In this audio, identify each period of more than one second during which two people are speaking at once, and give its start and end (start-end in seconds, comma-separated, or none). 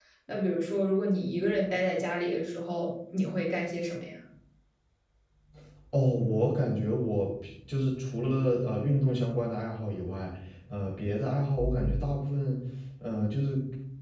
none